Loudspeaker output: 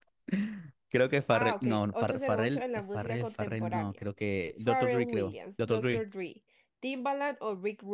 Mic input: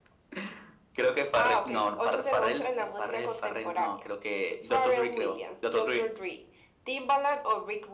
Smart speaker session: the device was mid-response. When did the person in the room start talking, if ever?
none

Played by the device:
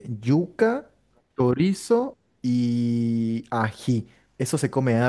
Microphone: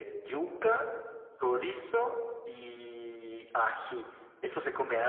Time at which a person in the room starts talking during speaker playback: none

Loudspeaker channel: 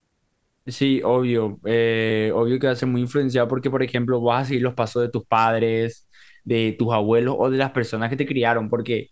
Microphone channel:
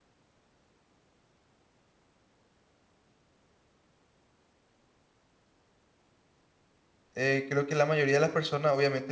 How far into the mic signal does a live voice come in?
7 s

